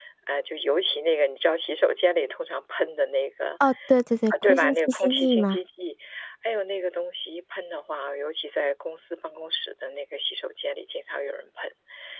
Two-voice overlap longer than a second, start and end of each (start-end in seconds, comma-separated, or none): 4.3-5.6